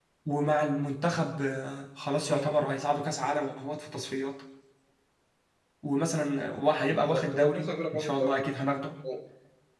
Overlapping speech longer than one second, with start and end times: 6.9-8.5

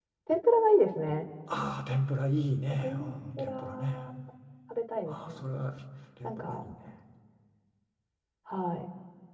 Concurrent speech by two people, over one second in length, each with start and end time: 2.8-4.0

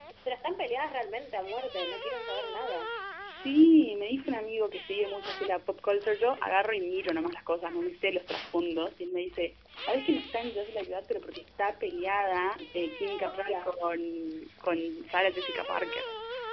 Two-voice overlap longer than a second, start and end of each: none

